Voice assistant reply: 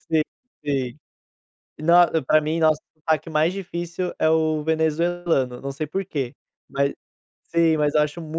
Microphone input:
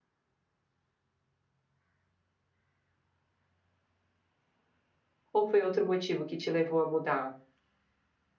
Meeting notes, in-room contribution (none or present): present